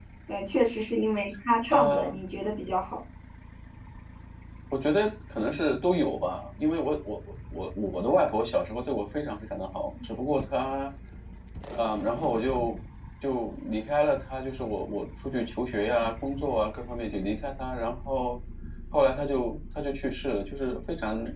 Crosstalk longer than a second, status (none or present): none